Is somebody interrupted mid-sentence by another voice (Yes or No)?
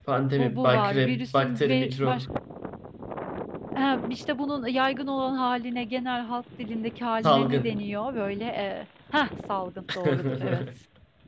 Yes